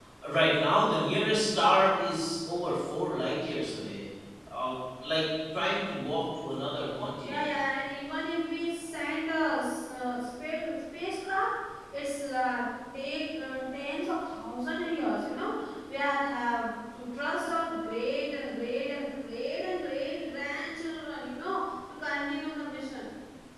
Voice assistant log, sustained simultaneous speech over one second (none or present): none